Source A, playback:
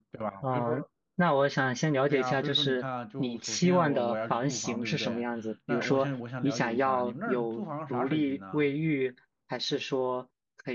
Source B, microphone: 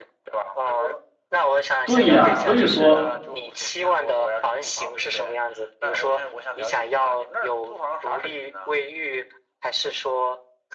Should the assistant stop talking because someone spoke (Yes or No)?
Yes